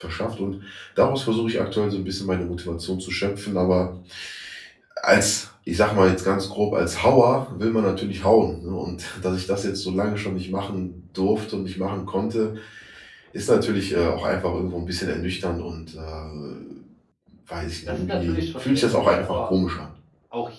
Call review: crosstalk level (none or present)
present